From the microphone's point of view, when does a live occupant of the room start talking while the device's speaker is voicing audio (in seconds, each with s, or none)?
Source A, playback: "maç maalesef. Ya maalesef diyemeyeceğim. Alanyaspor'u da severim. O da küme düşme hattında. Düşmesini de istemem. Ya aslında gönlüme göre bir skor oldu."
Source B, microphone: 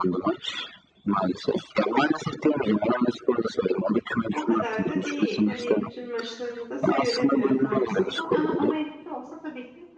4.3 s